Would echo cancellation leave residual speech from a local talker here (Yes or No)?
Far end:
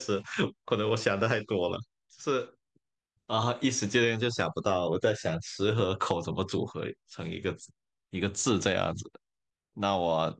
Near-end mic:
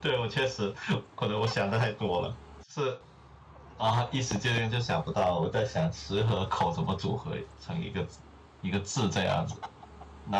No